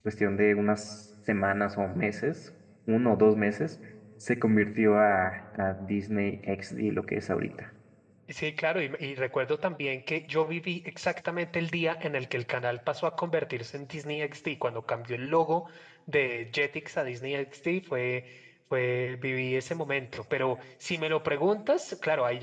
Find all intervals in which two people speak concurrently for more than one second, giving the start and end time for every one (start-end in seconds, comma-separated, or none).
none